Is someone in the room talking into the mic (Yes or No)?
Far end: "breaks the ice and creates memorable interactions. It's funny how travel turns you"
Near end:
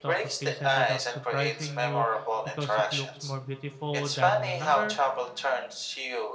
Yes